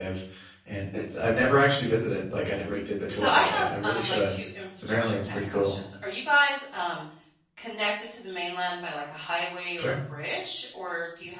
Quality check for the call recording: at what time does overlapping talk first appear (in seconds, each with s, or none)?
3.1 s